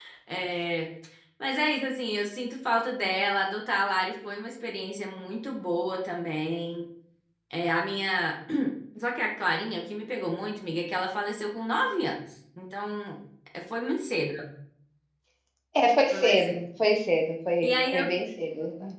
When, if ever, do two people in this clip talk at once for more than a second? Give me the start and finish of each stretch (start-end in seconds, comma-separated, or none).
none